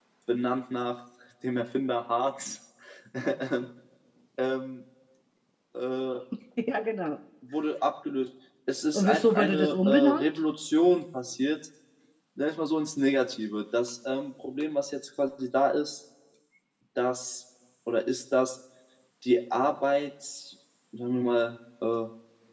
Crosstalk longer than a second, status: present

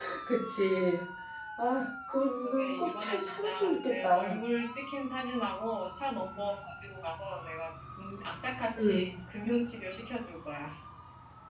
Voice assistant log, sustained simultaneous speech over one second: present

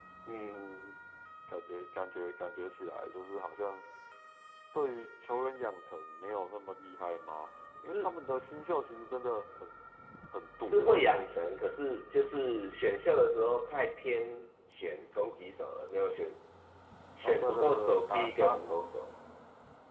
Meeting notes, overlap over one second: present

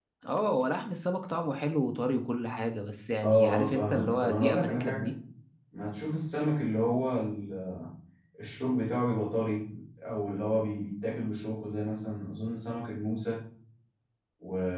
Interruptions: present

